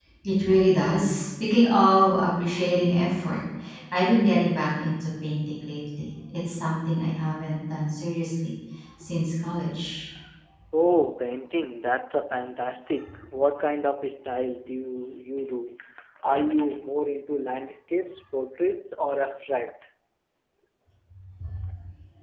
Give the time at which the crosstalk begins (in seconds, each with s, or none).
none